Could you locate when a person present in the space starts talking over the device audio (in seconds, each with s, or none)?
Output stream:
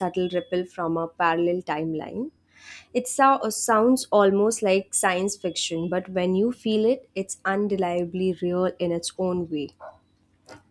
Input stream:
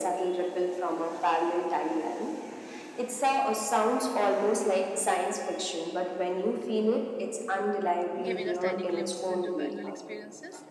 8.2 s